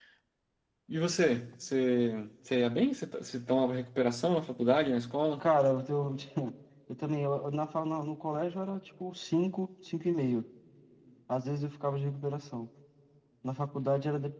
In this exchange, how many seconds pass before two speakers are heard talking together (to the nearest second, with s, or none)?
none